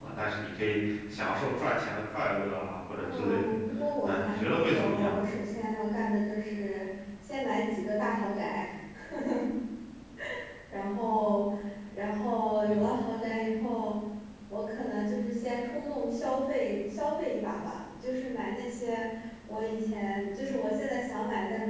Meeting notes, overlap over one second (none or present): present